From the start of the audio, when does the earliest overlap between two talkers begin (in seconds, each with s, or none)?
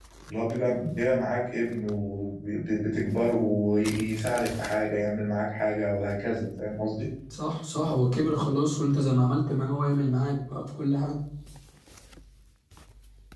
none